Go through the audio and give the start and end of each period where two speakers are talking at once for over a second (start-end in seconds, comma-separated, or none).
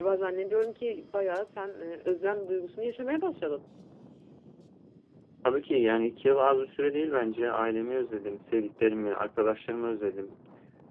none